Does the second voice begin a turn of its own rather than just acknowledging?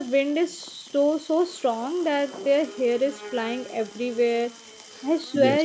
No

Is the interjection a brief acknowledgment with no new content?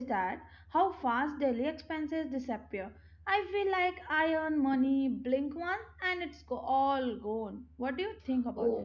No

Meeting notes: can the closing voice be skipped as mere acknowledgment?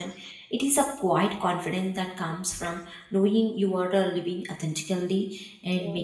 Yes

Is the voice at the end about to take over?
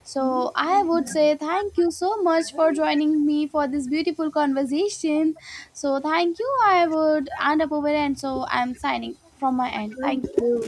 Yes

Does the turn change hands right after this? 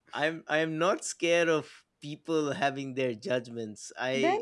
No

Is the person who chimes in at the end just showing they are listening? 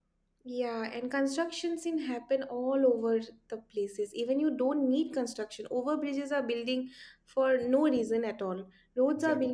Yes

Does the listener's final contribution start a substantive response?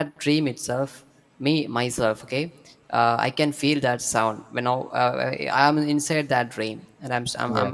No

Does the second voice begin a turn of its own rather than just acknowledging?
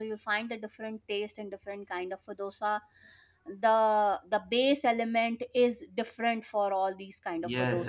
Yes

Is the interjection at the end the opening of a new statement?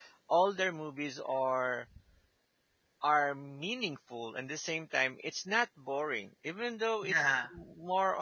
No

